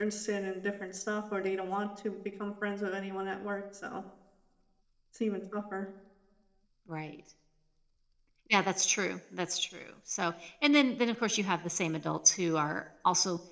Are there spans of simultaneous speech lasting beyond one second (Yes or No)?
No